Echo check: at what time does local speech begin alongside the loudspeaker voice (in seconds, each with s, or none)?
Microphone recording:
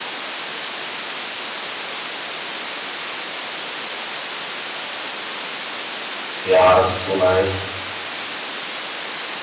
6.4 s